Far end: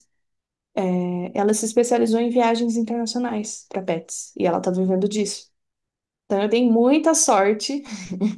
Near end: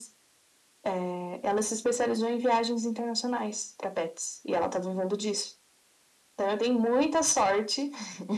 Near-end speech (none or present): none